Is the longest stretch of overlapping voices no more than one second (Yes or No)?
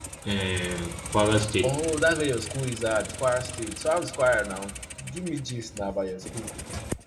Yes